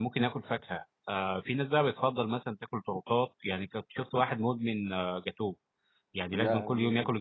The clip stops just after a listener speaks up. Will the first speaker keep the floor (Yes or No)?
Yes